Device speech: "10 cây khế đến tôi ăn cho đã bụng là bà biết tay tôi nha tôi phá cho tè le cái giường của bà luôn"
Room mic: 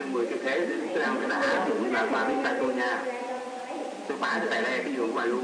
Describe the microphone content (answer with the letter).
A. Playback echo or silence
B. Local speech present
B